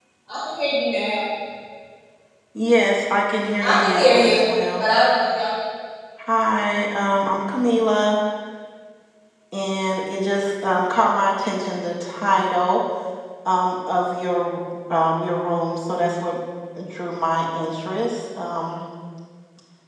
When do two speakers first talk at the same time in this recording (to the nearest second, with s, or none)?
4 s